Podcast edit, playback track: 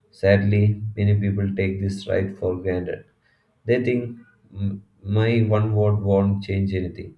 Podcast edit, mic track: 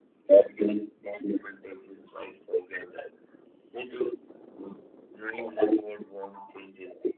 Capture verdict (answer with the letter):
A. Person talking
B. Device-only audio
B